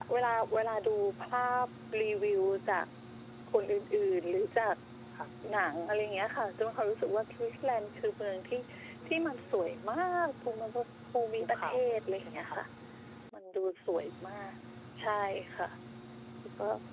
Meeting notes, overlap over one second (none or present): present